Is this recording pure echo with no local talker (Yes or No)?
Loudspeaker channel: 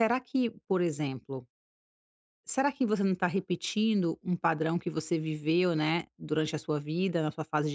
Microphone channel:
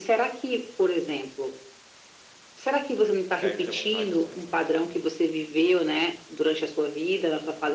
No